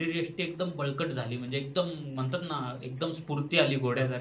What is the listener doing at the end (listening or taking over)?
taking over